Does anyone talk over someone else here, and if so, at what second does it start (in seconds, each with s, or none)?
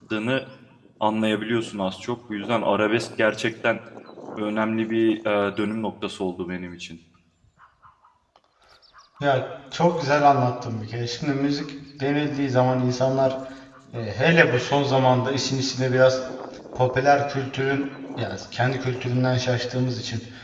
none